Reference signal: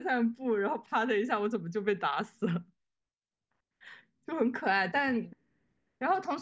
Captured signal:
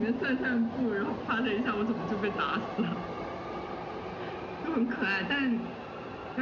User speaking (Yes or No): No